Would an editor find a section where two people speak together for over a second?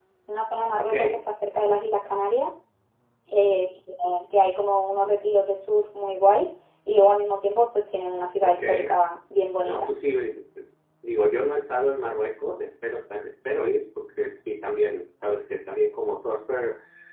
No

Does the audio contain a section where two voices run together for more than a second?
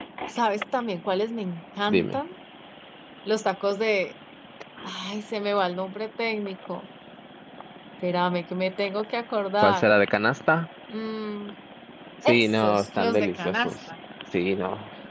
Yes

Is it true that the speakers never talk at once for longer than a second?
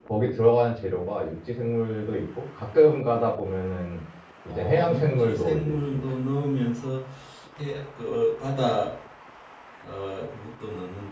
No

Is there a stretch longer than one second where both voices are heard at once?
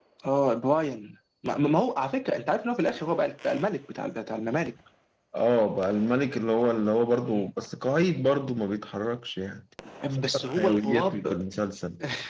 Yes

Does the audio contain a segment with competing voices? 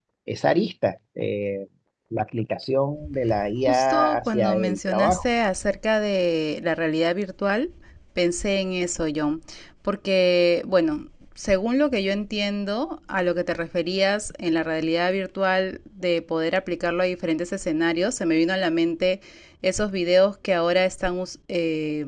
Yes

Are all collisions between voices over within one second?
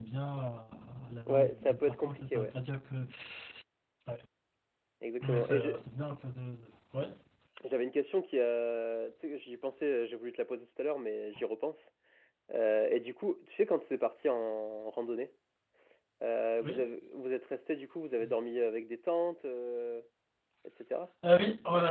No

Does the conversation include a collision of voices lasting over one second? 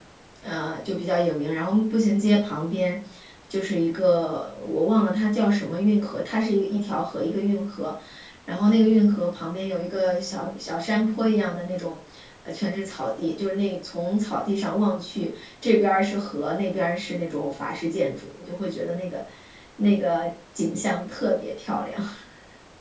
No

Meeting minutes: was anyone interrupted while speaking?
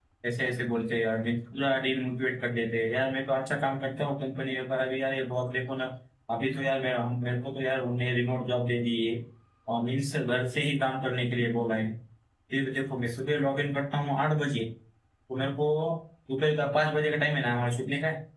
No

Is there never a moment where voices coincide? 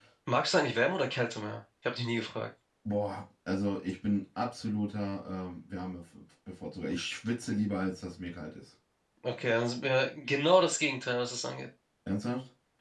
Yes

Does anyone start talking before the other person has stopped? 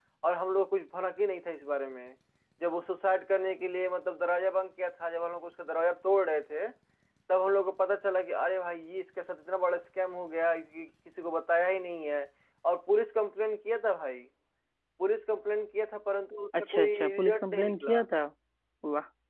Yes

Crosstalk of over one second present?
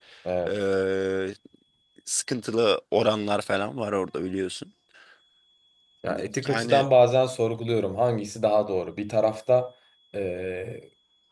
No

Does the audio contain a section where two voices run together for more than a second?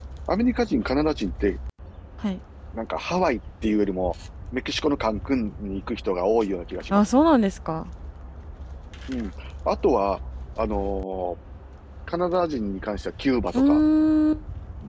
No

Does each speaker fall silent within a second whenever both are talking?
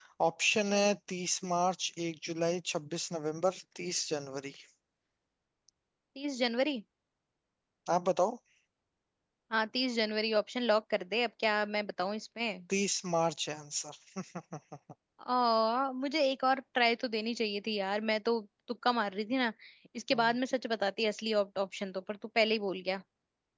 Yes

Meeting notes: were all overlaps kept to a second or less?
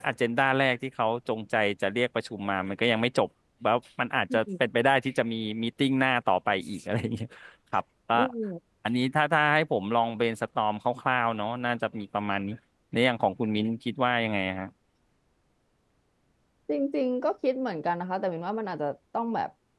Yes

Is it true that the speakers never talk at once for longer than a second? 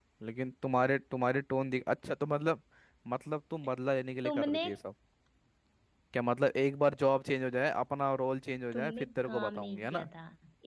No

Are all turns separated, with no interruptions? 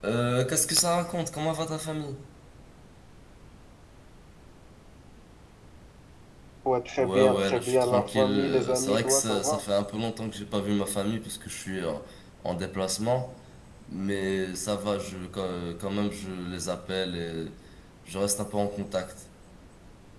No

